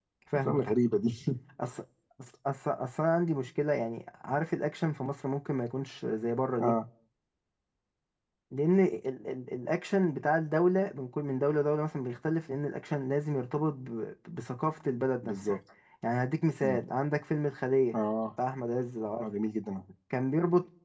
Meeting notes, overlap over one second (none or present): none